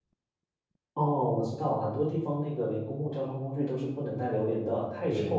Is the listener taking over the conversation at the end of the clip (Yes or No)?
Yes